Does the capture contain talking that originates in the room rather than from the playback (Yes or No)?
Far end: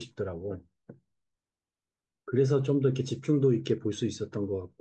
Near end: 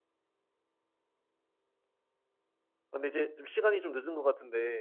Yes